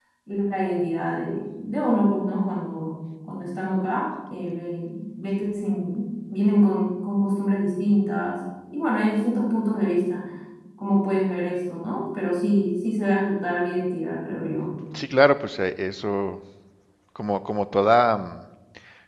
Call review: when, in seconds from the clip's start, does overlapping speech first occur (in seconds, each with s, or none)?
none